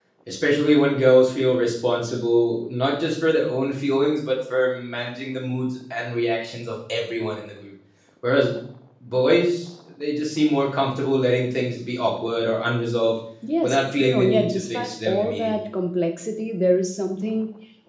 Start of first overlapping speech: 13.6 s

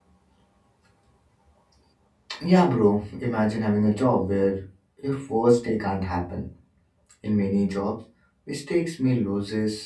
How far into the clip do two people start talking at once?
none

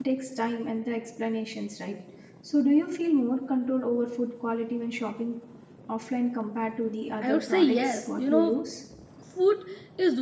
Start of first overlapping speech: 7.2 s

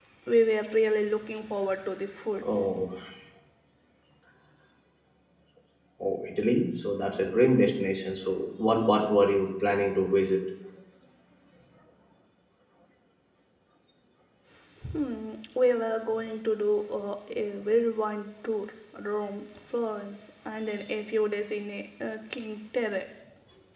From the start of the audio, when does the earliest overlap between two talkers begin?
none

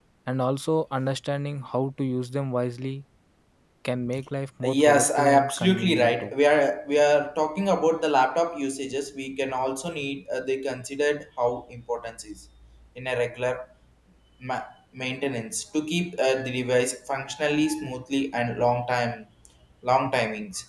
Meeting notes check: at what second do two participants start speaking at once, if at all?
4.6 s

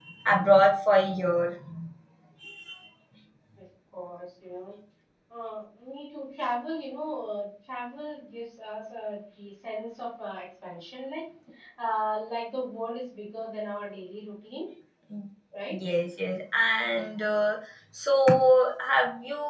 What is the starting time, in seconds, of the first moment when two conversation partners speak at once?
none

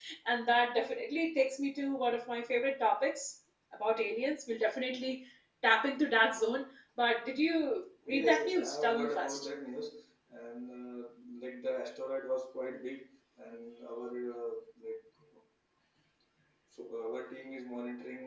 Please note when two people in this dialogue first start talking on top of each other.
8.1 s

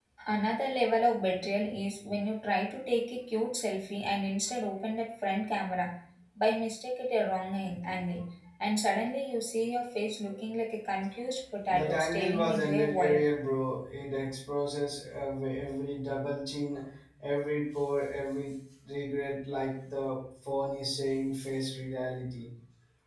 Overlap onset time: 11.7 s

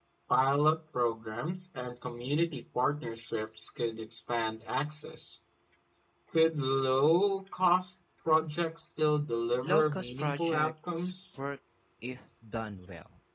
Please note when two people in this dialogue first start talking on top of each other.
9.6 s

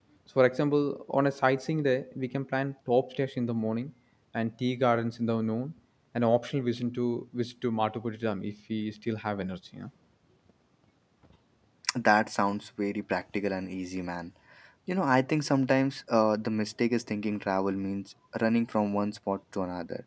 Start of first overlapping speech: none

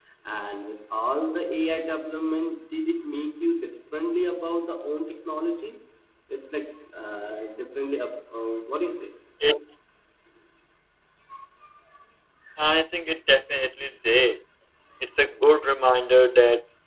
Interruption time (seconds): none

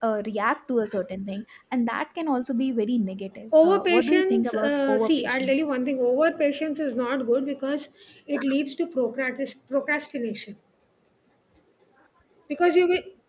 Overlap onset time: 3.5 s

